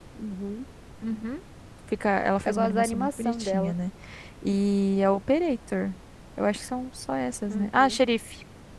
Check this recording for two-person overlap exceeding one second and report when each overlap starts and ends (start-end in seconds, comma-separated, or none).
2.5-3.8